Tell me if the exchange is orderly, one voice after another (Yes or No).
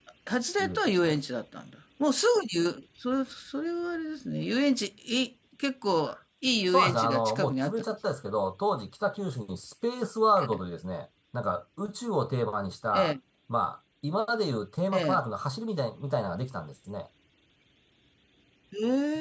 No